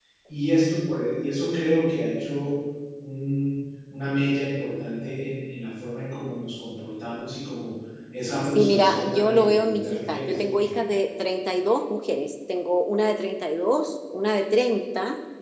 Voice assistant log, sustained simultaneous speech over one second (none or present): present